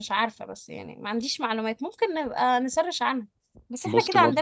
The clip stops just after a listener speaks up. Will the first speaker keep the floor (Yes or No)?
Yes